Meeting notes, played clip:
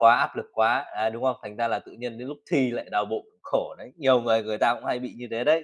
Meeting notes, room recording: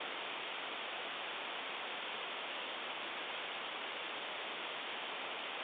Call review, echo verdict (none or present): none